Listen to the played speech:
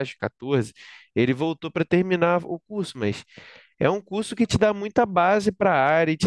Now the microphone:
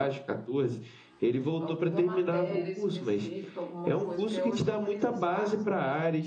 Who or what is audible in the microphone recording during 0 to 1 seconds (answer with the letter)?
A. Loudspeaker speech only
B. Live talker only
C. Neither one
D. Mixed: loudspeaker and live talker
A